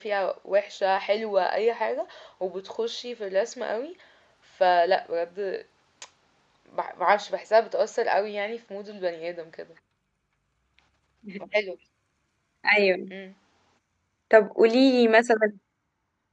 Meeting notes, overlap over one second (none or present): none